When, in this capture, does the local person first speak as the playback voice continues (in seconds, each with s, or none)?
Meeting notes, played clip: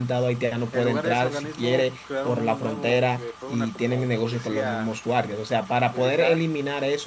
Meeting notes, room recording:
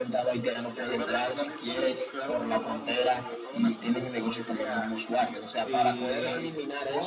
5.6 s